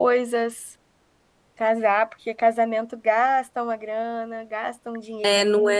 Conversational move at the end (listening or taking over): taking over